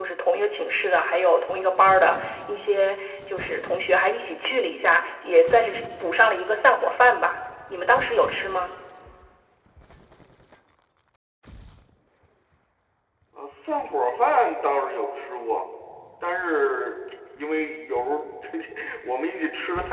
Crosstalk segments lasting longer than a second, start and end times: none

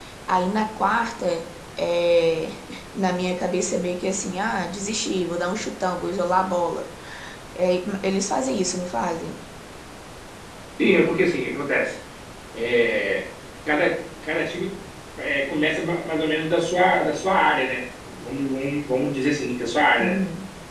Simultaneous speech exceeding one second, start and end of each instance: none

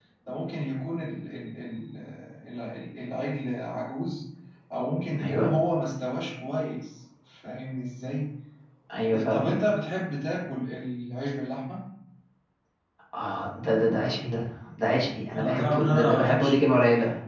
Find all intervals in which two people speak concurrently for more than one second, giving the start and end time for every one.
15.4-16.6

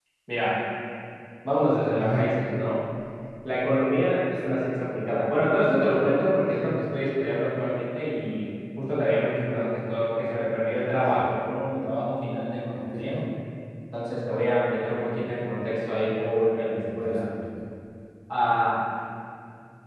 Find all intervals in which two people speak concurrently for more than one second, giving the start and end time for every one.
none

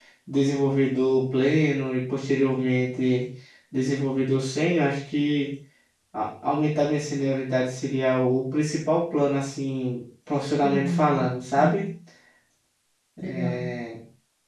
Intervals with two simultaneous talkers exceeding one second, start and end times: 10.6-11.8

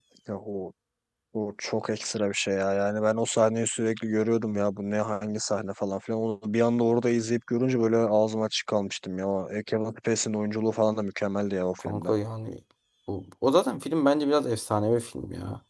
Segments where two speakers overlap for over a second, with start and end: none

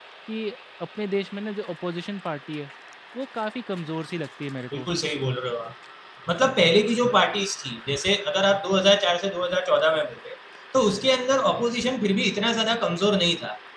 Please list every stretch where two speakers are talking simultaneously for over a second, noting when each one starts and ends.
none

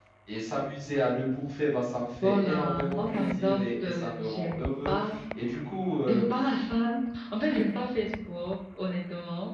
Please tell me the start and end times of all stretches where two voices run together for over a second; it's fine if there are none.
2.2-5.0

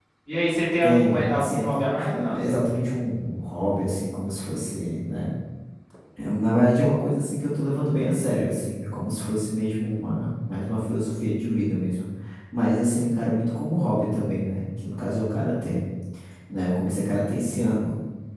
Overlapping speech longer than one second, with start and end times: 0.8-2.5

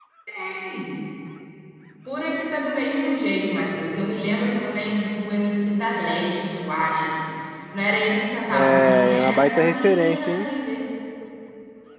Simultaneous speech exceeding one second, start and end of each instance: 8.5-10.5

